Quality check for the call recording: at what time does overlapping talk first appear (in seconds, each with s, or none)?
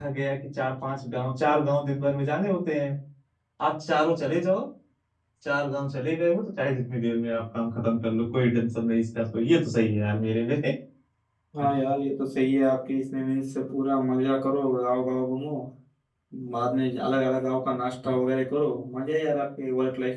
none